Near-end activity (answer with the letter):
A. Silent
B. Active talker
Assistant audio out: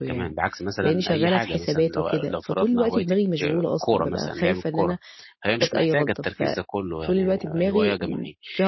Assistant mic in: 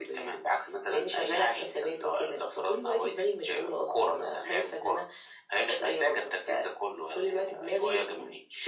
A